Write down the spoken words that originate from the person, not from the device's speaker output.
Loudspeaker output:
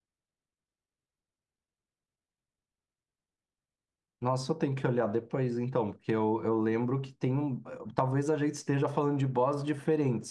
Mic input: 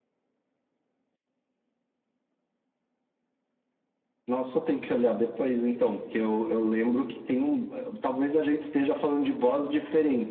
none

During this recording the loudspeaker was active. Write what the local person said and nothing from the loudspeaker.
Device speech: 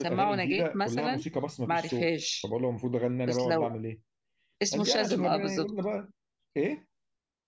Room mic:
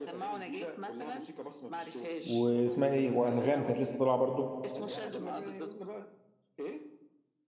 واسمها ايه وانغام كانت لسه طالعة برضو

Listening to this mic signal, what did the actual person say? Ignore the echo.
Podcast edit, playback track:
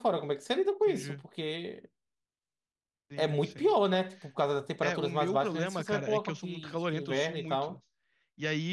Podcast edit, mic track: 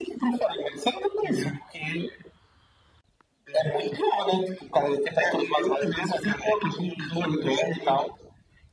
none

